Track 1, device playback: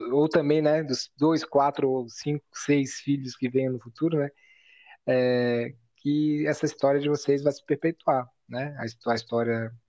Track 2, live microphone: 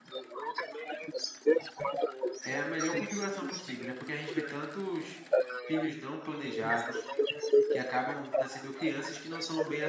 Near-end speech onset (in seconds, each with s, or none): 2.4 s